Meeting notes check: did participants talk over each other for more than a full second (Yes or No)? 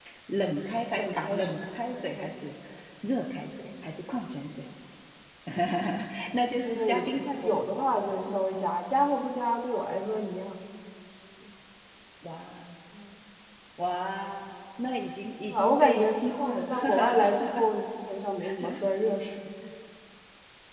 Yes